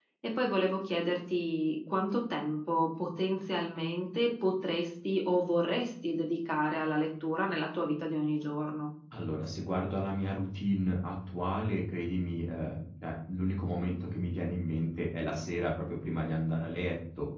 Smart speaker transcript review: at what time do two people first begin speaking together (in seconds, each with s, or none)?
none